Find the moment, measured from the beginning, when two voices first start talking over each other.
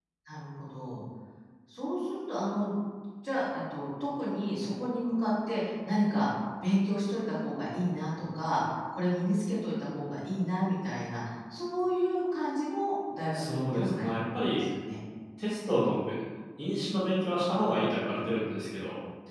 13.3 s

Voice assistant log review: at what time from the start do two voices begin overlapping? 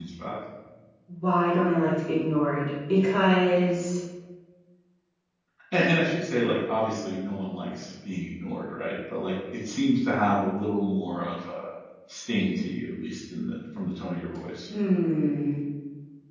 none

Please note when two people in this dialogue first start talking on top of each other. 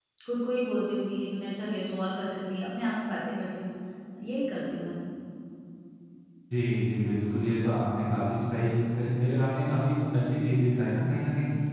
none

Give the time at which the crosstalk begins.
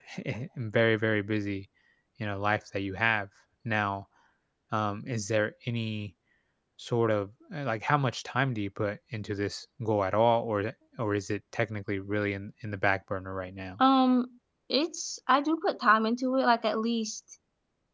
none

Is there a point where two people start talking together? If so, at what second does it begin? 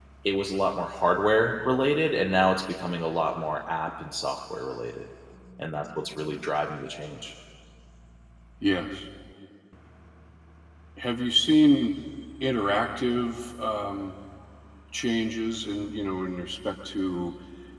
none

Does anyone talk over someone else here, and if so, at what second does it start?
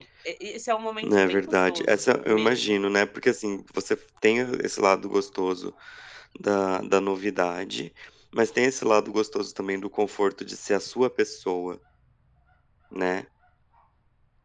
1.0 s

